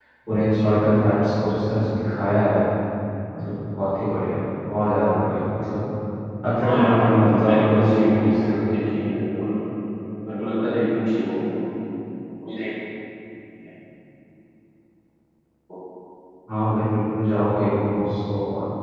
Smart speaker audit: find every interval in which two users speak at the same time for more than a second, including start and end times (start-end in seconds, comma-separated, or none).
6.6-8.6